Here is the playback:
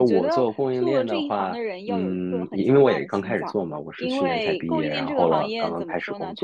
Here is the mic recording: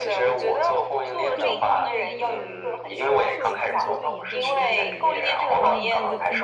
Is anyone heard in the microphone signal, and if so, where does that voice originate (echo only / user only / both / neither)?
both